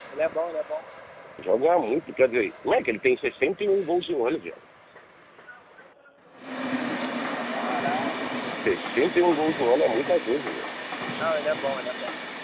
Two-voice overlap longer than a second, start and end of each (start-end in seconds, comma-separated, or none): none